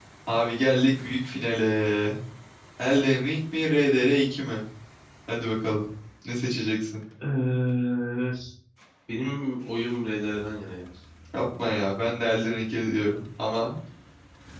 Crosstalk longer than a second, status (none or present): none